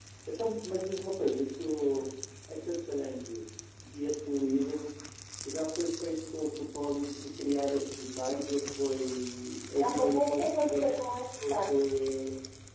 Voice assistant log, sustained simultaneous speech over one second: present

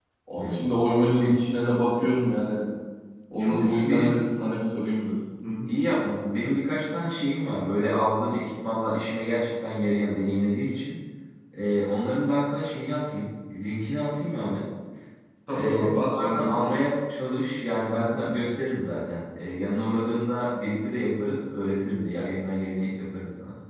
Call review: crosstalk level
present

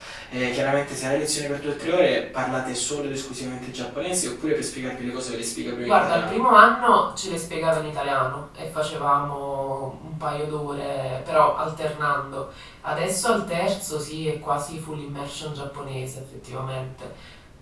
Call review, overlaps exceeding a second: none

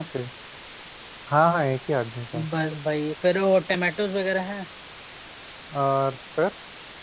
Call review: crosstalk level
none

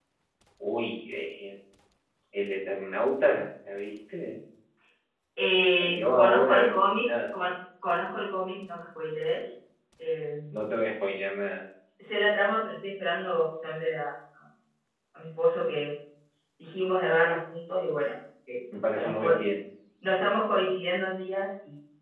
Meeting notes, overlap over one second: present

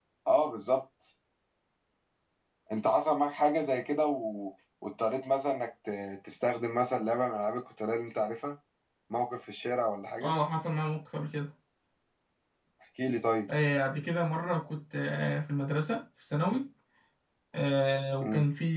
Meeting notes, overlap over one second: none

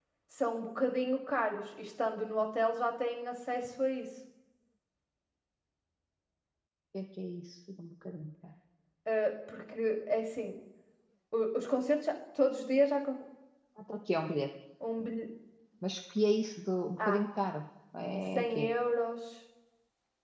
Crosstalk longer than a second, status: none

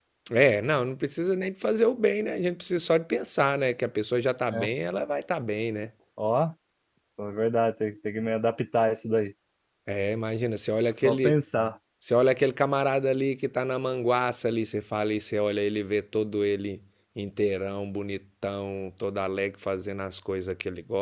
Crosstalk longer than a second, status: none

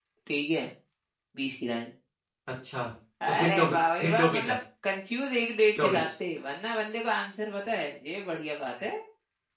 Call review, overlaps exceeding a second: present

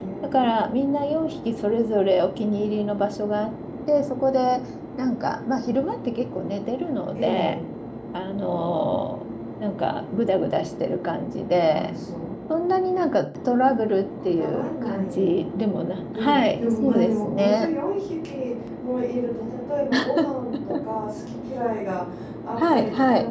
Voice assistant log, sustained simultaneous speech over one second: present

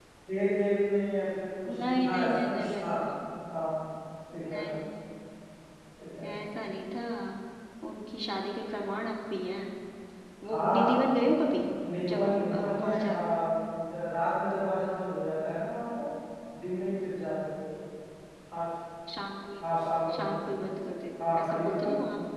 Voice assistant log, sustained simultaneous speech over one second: present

